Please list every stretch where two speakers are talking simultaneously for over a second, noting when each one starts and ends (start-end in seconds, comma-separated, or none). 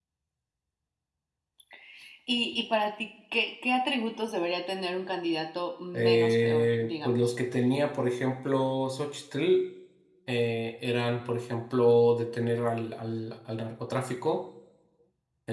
5.9-7.2